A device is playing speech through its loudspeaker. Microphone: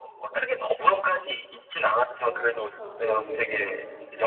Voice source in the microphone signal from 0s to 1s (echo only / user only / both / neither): echo only